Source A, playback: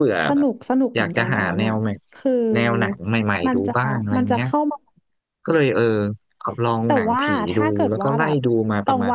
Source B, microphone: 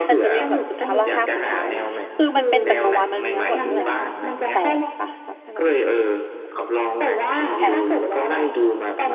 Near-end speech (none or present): present